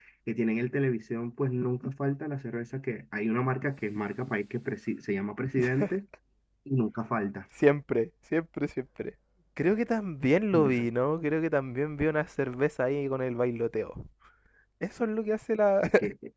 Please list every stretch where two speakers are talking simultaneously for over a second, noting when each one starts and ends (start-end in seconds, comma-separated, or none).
none